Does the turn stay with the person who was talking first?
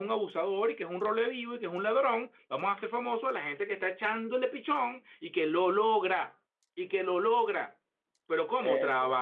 Yes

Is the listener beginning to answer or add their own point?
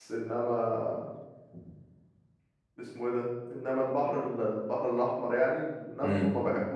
No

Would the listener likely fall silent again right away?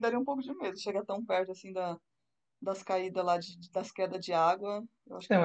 No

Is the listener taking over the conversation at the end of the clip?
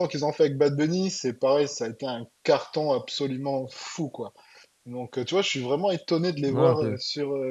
No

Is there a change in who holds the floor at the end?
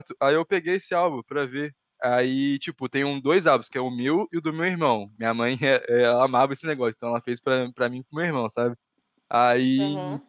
No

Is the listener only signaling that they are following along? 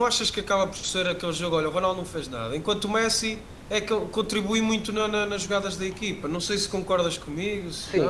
No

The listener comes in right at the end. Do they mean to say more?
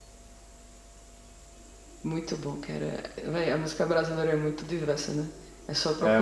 Yes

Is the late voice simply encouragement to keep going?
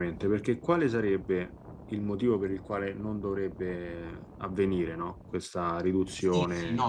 No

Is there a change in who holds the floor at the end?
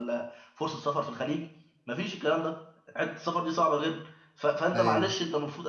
No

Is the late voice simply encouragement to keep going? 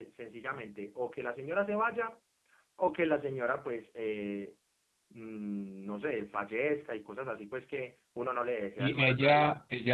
No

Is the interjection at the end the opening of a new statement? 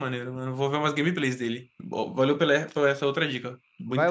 Yes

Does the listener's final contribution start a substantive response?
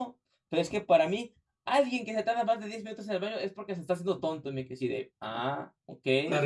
Yes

